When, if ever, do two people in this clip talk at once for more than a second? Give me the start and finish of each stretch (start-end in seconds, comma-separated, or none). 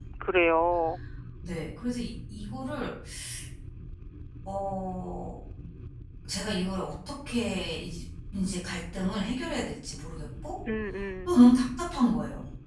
none